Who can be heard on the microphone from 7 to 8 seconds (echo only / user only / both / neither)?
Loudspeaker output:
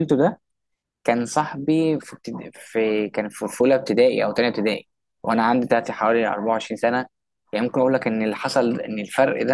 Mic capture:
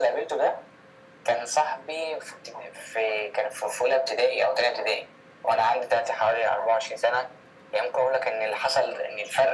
echo only